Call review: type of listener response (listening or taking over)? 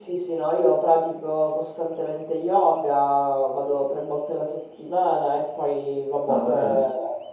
listening